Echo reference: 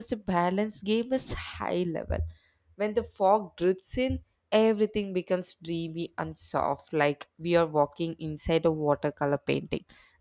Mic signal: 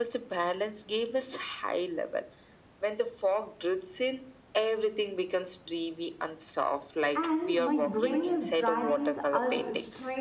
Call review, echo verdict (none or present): present